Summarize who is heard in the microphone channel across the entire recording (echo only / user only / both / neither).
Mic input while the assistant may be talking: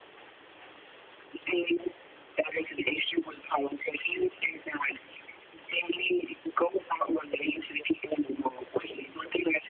echo only